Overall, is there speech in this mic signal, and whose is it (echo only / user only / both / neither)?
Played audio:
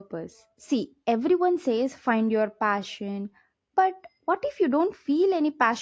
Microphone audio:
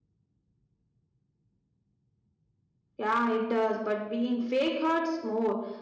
user only